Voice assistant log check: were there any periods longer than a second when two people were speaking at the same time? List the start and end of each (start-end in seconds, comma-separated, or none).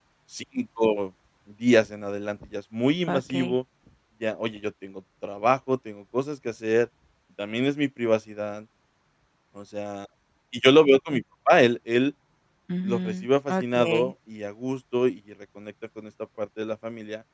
12.8-14.1